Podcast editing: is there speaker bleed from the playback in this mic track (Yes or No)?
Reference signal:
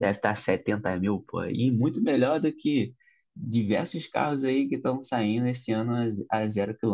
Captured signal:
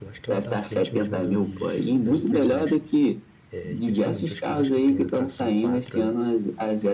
Yes